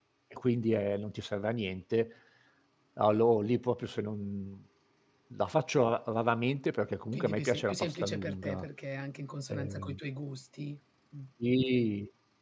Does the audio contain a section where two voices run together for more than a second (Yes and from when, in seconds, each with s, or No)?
Yes, from 7.1 s